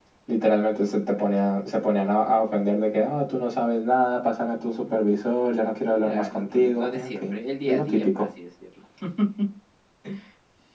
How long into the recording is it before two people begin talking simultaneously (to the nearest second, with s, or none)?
6 s